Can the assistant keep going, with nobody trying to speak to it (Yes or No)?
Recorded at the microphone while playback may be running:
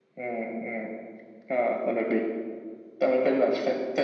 Yes